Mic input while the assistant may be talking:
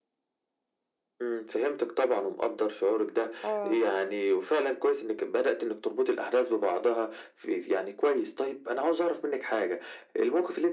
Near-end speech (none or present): present